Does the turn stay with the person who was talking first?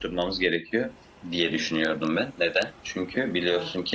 Yes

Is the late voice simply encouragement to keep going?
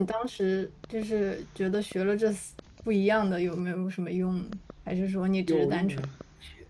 No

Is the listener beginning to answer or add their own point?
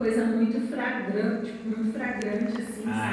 Yes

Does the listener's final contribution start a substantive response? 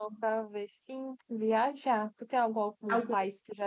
No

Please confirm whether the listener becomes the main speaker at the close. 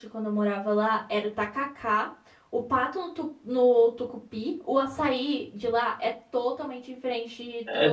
Yes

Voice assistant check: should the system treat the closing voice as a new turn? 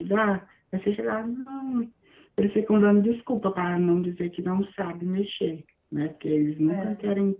No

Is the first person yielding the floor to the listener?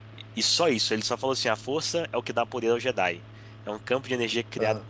No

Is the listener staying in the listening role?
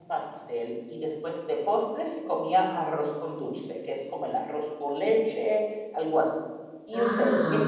No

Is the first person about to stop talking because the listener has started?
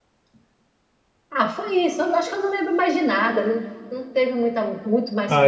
Yes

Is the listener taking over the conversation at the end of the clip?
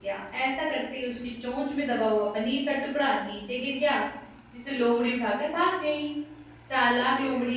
No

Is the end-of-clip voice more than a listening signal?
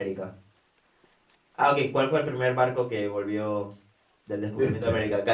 No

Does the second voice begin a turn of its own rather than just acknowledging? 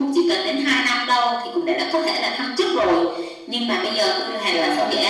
No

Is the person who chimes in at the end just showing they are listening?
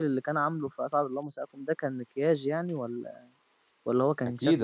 No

